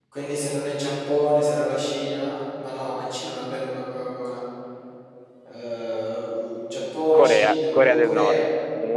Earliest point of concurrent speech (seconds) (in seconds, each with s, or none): 7.1 s